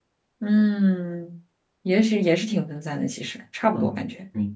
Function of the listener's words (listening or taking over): taking over